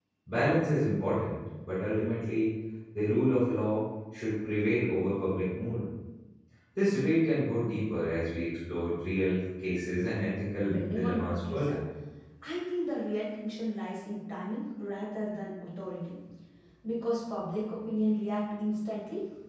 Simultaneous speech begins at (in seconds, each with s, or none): 10.6 s